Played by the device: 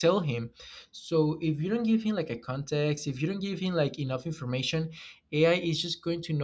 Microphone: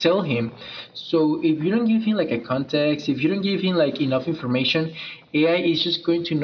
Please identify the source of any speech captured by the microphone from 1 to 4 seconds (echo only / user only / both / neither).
echo only